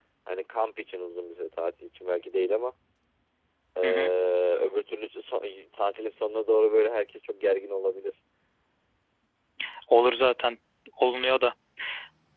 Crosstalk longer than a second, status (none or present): none